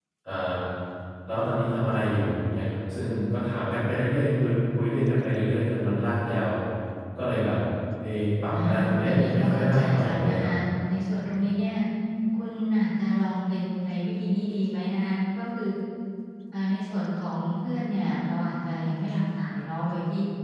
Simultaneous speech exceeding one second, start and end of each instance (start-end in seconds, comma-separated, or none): 8.5-10.5